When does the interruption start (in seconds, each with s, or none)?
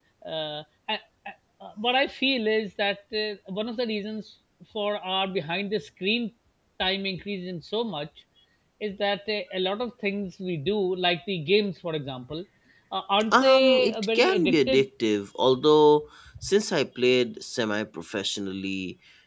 13.3 s